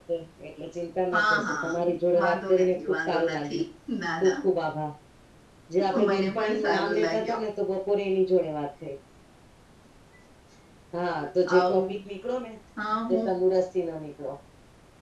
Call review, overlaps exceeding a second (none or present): present